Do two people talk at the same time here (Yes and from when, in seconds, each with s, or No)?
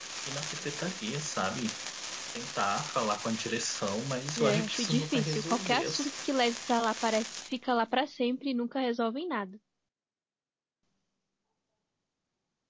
Yes, from 4.4 s